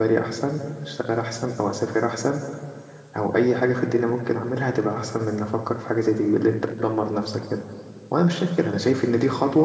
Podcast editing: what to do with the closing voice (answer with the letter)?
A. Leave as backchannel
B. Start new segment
A